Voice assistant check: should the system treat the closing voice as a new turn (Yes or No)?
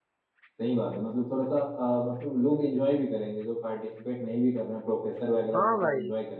Yes